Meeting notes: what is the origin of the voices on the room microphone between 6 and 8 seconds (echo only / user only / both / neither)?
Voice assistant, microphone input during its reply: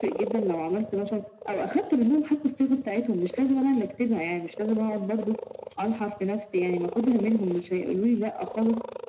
echo only